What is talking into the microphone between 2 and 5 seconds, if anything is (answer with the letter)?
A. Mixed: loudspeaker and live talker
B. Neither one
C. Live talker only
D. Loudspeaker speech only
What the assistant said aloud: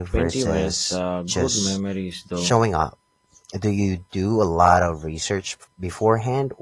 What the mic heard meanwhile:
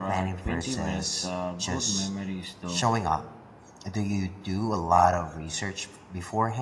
D